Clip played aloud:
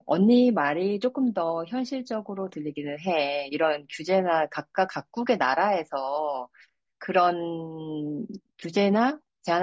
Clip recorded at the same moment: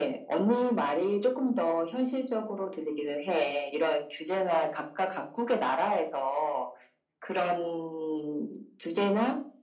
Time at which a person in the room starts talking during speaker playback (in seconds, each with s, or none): none